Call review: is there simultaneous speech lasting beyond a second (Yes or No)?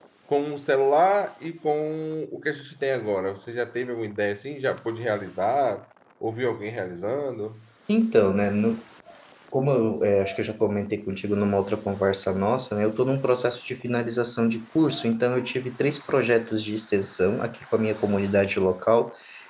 No